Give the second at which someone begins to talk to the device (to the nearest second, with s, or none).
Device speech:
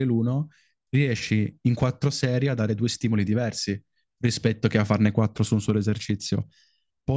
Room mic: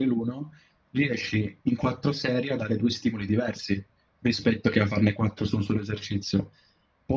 none